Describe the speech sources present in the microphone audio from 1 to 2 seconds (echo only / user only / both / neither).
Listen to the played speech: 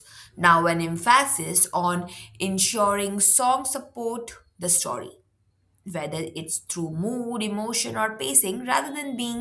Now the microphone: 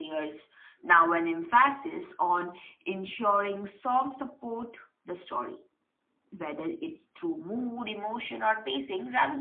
echo only